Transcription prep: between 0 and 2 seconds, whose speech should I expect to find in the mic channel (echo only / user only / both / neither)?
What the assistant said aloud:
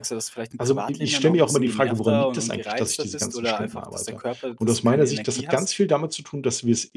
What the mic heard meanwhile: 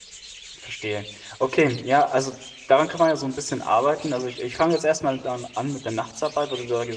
user only